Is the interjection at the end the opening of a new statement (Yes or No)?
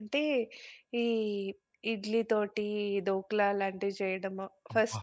No